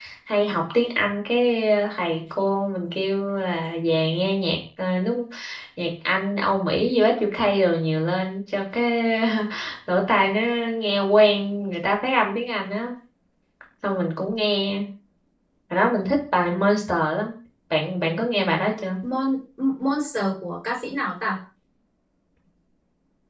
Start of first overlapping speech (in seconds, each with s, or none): none